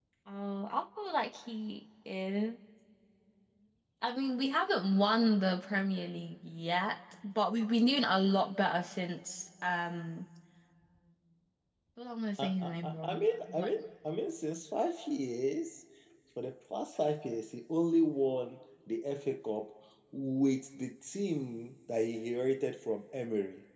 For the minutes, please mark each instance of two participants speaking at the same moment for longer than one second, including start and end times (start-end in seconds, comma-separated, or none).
12.4-13.7